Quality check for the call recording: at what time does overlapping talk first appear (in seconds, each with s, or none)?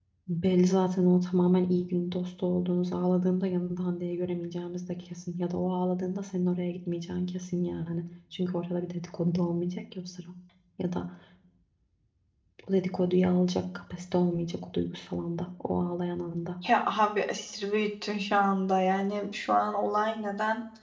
none